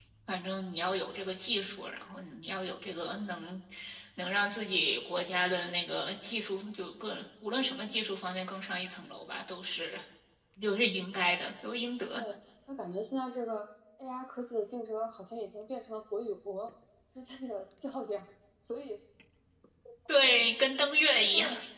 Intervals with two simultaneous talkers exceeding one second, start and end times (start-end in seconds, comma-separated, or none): none